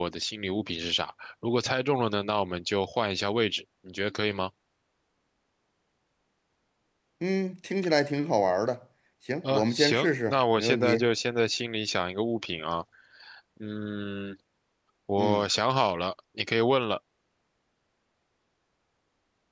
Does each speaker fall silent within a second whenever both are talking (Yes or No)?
No